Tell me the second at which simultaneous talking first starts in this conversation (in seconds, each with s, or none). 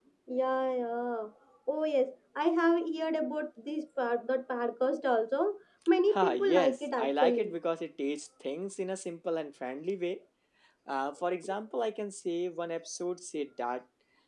6.1 s